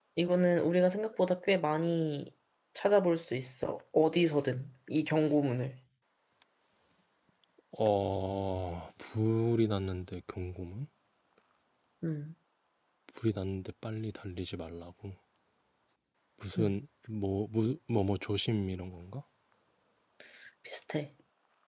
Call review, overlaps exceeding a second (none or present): none